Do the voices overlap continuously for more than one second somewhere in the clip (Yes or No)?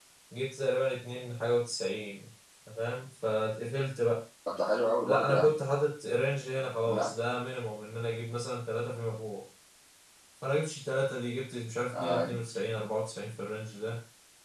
No